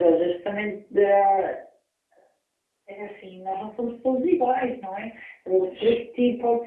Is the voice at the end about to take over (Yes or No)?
No